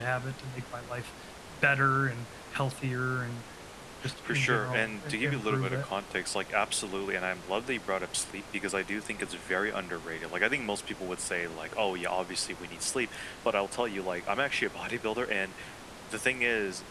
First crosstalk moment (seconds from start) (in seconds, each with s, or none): 4.3 s